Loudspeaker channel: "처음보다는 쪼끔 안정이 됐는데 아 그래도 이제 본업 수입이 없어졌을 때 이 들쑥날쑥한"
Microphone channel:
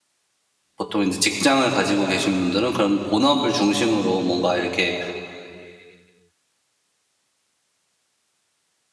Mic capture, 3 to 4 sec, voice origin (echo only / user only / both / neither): user only